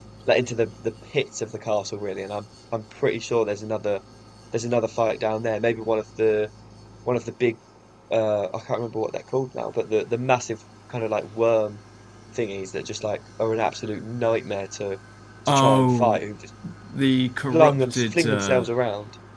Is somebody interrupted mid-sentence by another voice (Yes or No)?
Yes